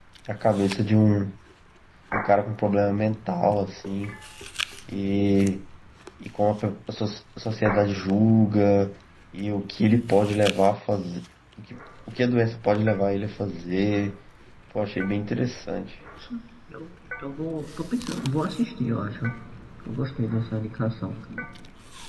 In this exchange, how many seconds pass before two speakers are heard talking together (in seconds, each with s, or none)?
none